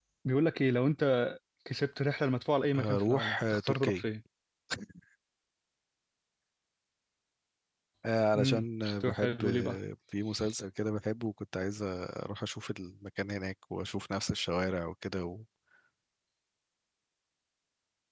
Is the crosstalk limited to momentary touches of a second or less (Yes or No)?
No